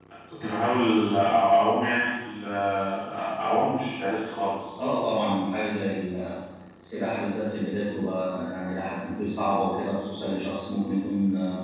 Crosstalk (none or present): none